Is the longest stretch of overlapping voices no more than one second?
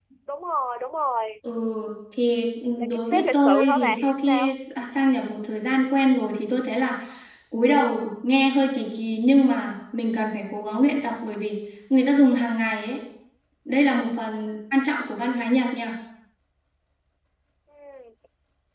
No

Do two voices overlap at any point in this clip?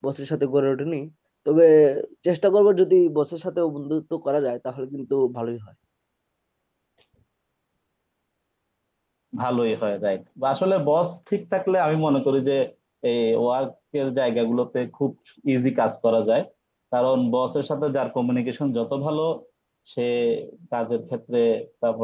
No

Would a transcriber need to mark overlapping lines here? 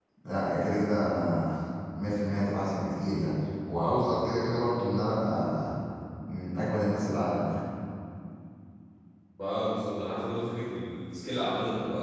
No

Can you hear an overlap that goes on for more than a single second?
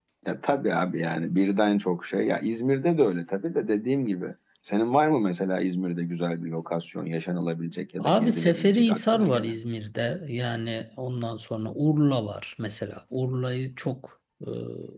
Yes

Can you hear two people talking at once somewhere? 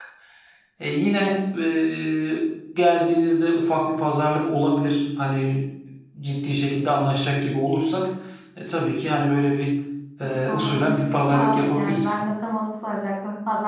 Yes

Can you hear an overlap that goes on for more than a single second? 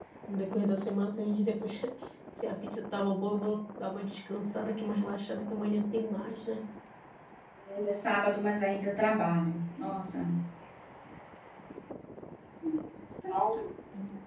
No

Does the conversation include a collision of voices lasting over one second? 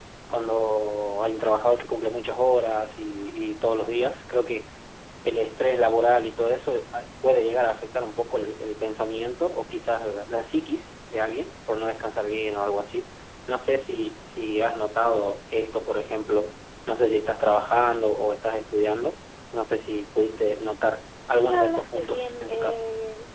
Yes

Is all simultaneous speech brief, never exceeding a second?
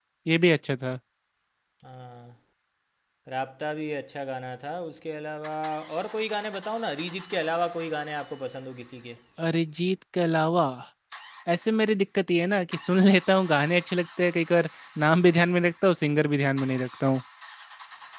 Yes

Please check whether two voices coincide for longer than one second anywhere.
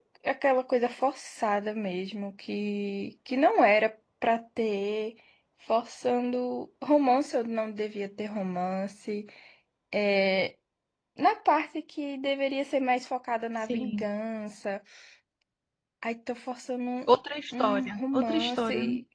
Yes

